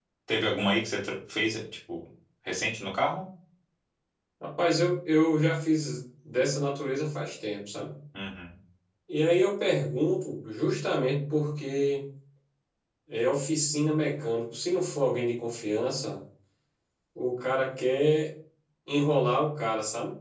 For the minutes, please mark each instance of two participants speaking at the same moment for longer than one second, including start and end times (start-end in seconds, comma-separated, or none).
none